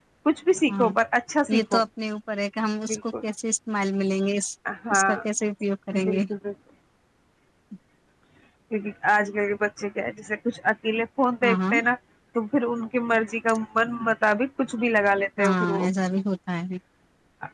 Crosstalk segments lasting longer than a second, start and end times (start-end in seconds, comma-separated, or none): none